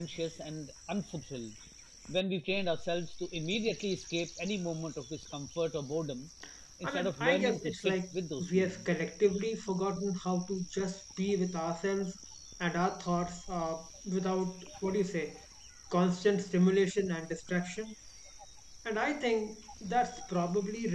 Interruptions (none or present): present